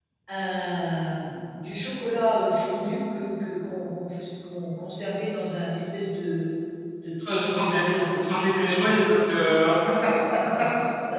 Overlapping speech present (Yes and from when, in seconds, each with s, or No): Yes, from 7.3 s